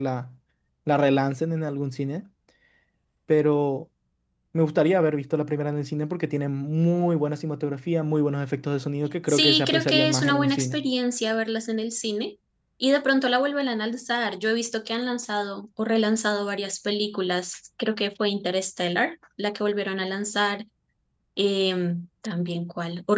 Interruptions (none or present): present